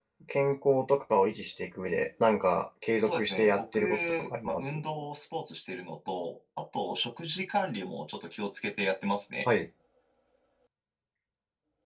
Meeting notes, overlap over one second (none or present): present